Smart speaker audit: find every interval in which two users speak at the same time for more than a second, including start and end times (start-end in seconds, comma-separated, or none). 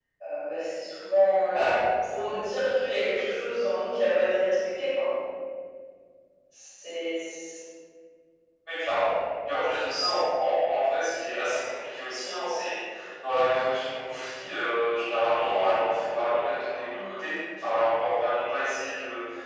none